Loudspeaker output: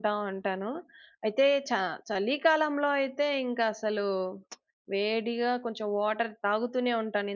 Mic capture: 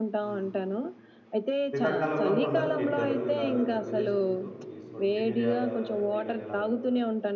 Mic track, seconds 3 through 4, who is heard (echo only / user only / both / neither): both